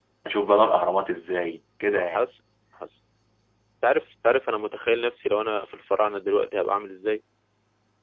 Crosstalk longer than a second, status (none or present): none